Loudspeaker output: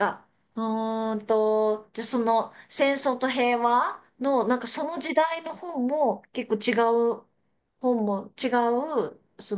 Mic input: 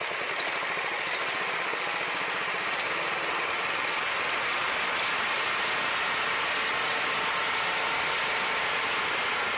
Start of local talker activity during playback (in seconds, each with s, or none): none